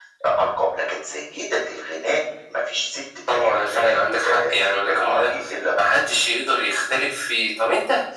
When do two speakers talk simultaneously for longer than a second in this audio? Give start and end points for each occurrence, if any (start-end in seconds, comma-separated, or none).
3.3-4.5